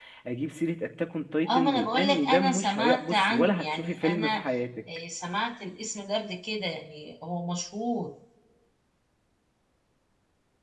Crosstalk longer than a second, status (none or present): present